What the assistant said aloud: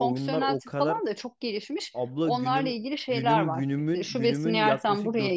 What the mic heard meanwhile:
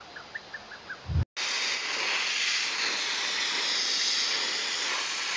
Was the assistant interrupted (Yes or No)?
No